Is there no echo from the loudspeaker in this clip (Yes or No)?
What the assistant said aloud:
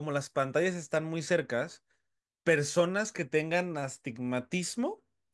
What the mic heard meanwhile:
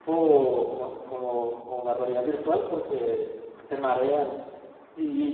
Yes